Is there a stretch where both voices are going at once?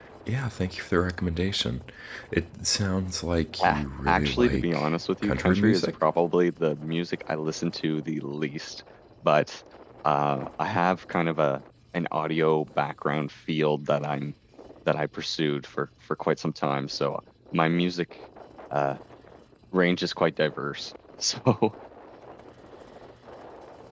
Yes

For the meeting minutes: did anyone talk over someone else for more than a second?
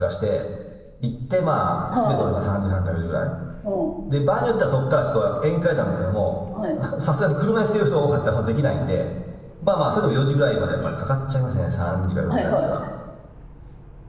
No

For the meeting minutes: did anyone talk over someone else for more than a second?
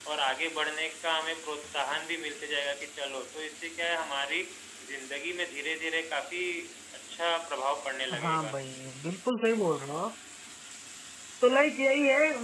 No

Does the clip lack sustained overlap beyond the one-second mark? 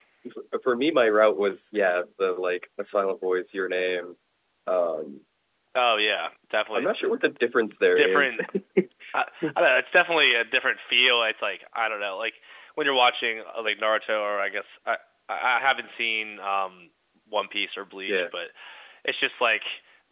Yes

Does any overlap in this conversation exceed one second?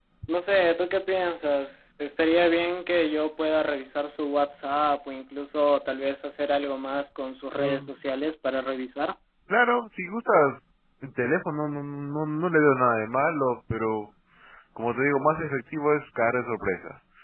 No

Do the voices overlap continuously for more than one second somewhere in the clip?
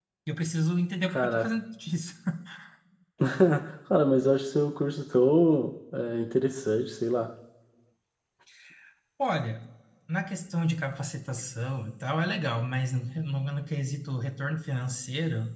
No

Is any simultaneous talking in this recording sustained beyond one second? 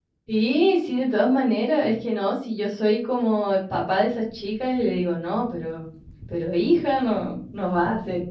No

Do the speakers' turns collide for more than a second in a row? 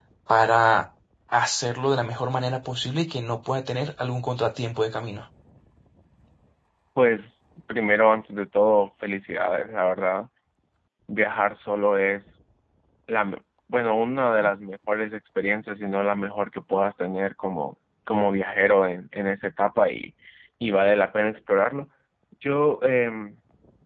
No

